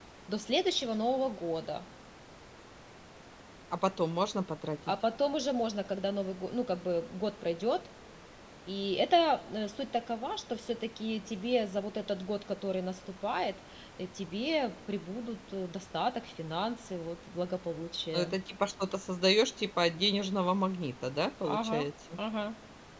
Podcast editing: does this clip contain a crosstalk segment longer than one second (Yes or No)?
No